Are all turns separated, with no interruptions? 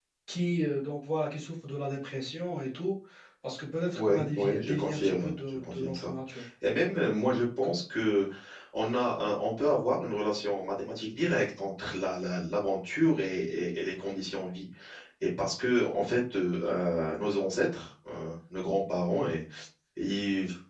No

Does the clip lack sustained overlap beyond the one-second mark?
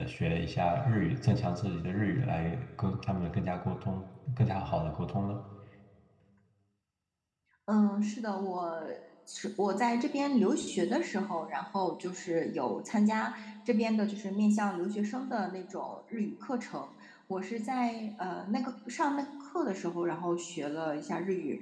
Yes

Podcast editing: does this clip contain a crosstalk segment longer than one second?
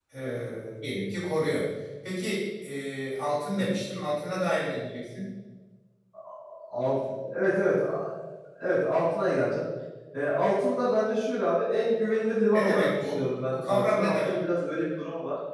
Yes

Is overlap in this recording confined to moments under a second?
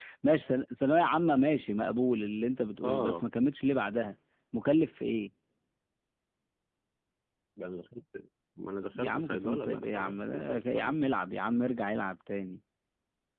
No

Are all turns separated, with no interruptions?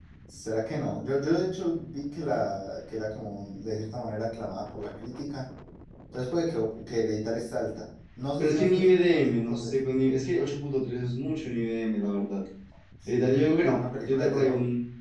No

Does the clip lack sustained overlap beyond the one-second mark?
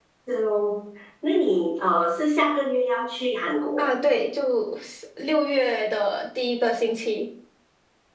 Yes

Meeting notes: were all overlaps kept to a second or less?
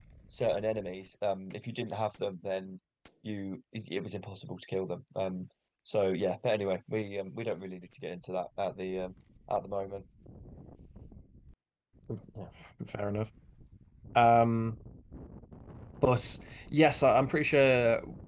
Yes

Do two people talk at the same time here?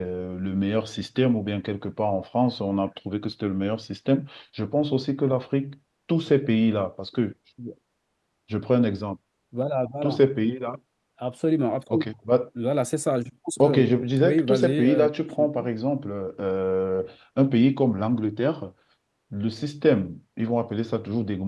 Yes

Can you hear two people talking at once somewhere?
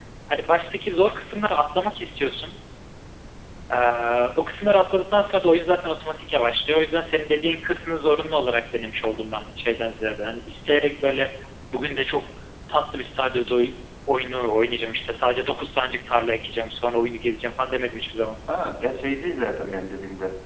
No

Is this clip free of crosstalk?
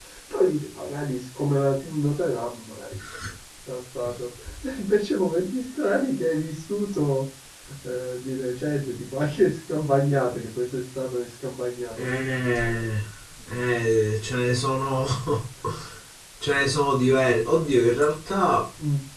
Yes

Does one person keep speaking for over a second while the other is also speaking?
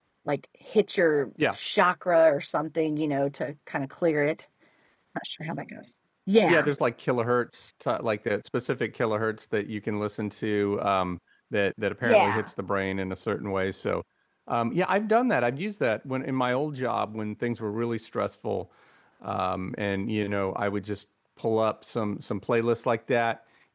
No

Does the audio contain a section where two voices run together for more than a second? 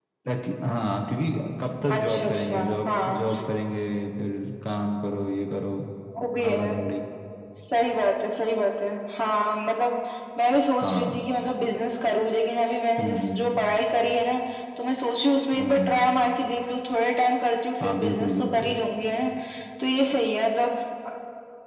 Yes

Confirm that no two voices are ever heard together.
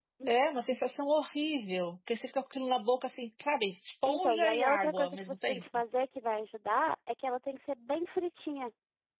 No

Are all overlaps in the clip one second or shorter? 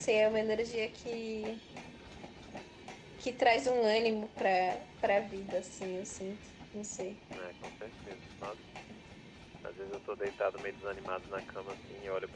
Yes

